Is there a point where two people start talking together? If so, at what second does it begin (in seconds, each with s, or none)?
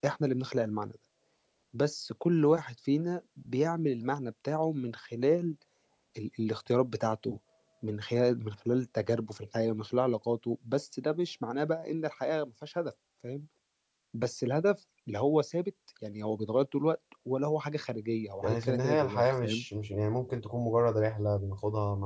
18.4 s